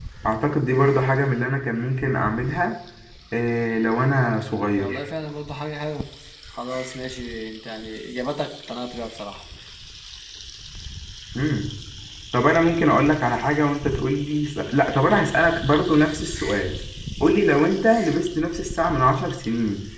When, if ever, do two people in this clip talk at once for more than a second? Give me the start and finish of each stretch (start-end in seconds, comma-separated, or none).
none